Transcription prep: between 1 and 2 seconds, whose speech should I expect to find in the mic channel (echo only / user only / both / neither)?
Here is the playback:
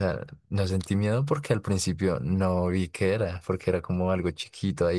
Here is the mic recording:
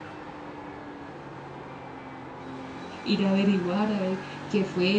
neither